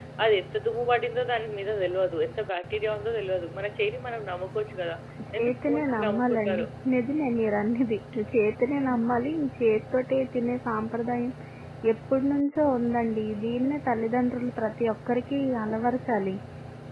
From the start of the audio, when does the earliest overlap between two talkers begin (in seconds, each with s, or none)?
5.4 s